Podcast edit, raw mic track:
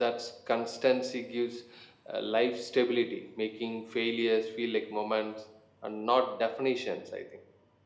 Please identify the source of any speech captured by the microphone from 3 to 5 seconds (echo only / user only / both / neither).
echo only